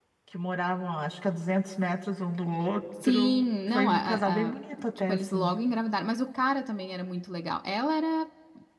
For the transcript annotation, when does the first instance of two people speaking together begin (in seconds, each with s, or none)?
3.0 s